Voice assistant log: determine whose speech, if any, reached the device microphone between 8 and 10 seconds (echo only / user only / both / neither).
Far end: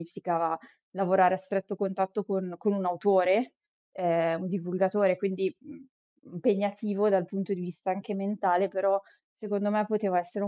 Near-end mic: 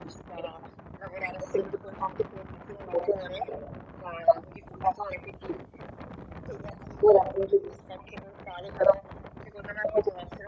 echo only